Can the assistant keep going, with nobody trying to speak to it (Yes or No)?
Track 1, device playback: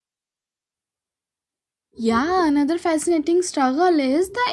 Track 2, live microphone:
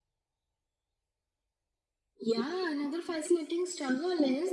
Yes